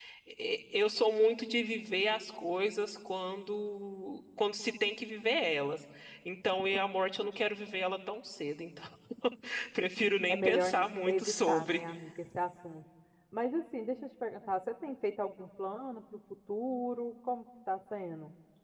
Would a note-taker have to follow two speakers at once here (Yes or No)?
Yes